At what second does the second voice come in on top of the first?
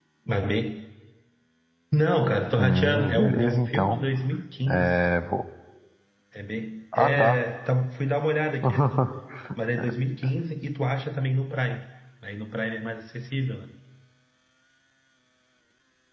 2.6 s

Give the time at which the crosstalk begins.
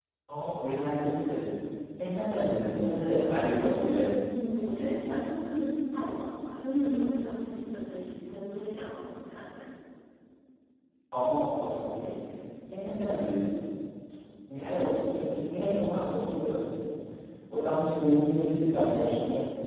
none

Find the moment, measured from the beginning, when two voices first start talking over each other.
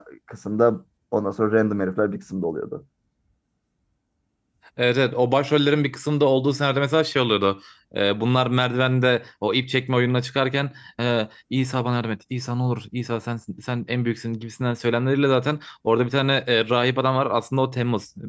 none

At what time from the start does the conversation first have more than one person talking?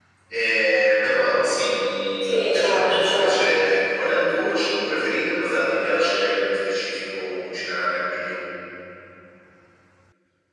2.3 s

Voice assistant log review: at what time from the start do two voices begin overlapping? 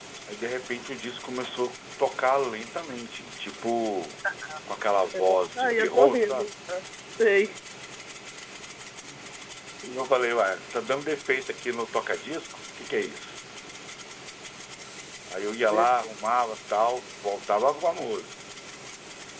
5.1 s

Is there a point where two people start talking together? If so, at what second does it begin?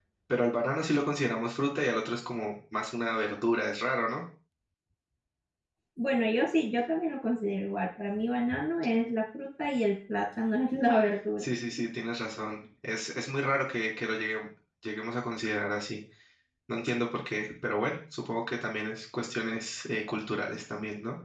none

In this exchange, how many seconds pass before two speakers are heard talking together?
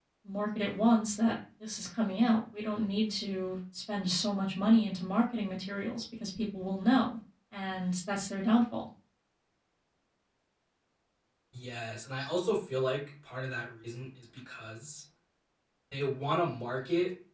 none

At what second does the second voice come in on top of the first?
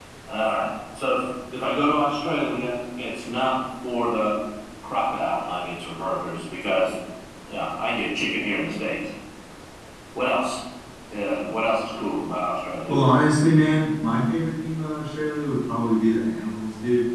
none

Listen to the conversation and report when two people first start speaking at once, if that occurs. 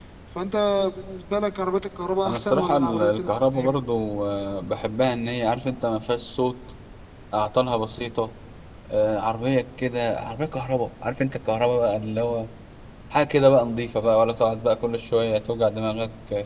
2.2 s

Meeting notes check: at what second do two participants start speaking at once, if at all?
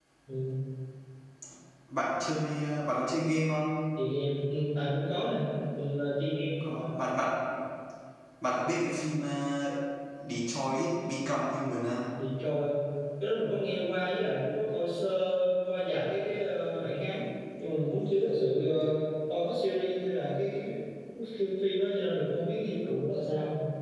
none

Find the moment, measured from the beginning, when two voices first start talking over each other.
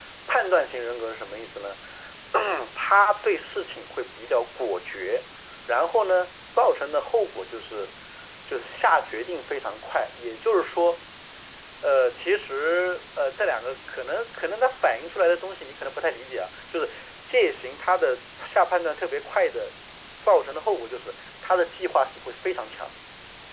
none

